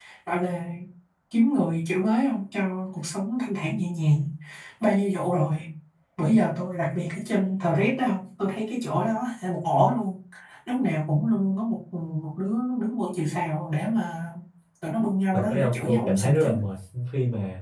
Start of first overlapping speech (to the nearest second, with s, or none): 15 s